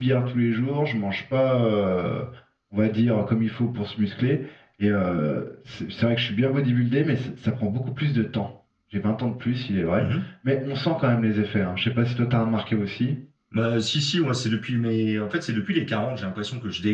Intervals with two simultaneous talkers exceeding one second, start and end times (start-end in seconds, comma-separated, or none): none